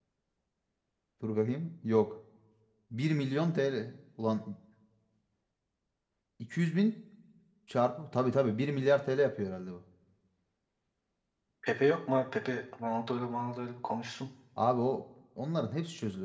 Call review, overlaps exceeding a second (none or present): none